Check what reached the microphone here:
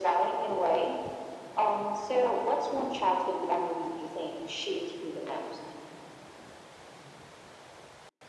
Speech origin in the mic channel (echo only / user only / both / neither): echo only